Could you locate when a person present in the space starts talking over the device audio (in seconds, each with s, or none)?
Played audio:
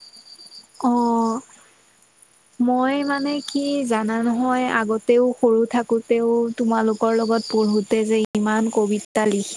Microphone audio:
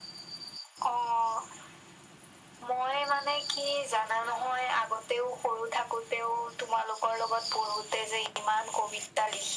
none